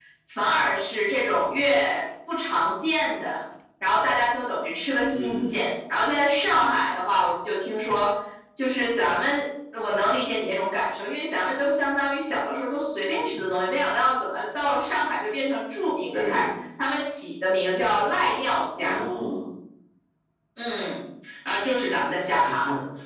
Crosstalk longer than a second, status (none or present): none